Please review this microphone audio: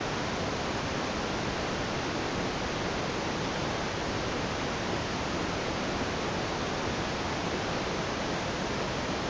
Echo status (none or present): none